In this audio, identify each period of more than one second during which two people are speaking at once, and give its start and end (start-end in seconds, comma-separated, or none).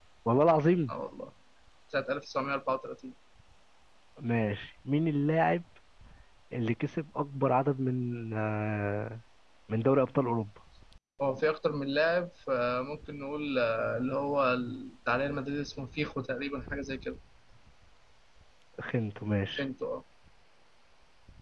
none